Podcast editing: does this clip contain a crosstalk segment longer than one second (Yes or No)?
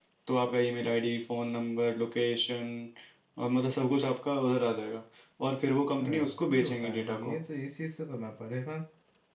Yes